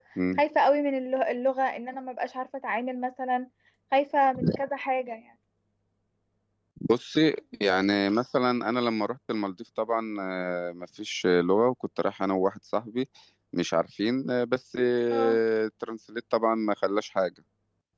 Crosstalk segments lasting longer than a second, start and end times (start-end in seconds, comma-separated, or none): none